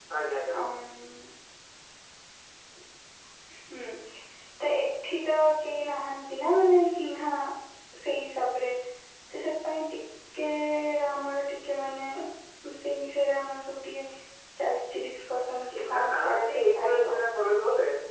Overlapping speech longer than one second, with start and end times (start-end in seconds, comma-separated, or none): 15.7-17.2